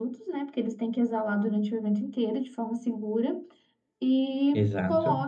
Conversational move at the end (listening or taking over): listening